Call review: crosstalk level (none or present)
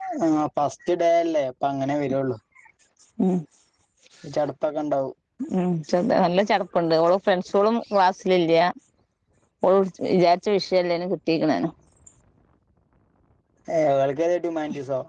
none